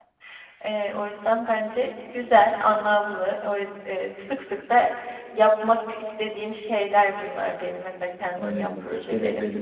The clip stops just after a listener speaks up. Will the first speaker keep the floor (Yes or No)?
No